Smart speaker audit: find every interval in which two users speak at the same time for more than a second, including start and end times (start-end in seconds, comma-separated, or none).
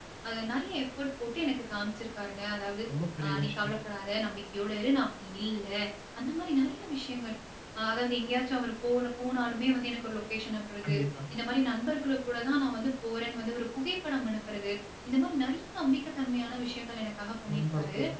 none